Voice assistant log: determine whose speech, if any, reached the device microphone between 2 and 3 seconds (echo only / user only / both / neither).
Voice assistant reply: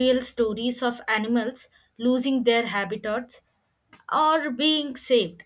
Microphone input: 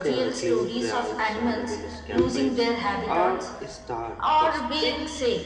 both